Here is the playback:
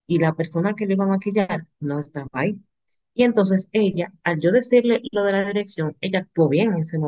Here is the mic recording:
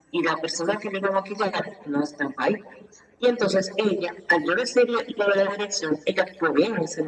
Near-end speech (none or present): none